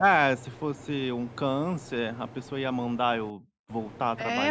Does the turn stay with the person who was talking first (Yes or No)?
No